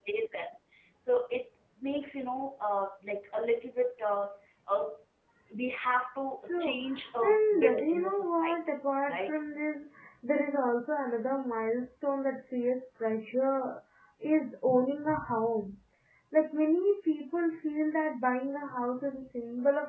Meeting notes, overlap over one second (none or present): present